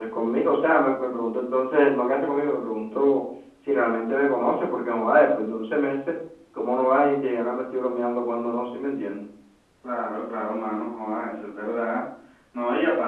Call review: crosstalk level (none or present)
none